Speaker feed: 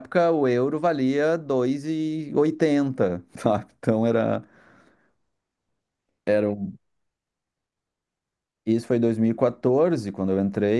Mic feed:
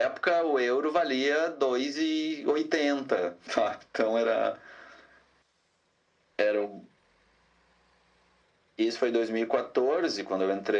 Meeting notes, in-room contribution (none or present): none